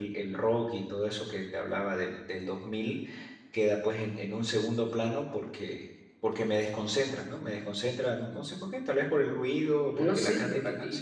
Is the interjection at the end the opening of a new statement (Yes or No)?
Yes